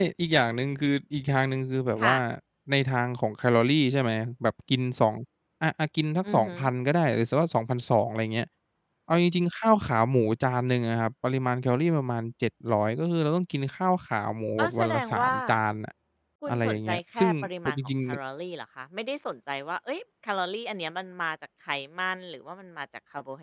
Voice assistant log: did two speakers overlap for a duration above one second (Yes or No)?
Yes